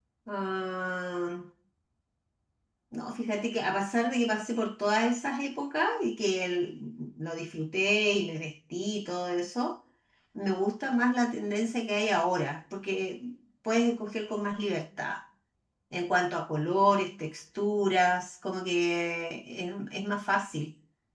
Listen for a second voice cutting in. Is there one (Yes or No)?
No